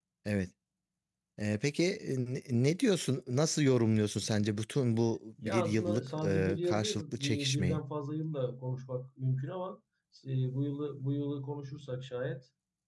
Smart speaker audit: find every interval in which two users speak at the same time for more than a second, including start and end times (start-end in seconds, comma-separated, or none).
5.4-7.8